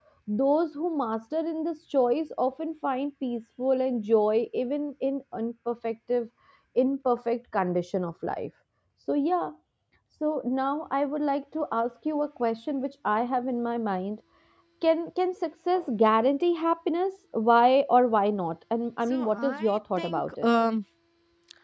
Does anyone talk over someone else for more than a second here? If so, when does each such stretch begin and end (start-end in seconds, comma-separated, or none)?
19.1-20.5